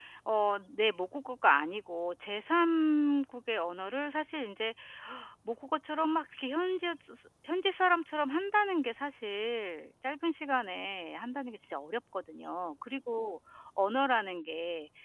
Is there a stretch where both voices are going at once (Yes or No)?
No